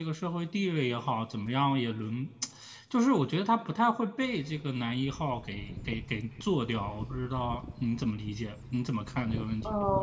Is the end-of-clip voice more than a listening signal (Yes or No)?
Yes